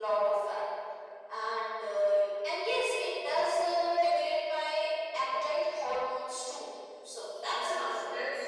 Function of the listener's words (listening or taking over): taking over